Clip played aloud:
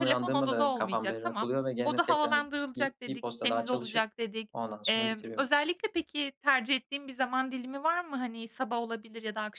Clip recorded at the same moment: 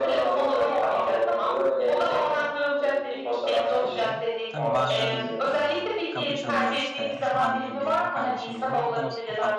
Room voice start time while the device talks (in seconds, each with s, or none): 3.8 s